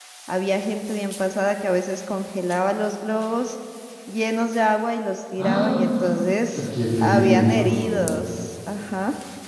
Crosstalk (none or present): present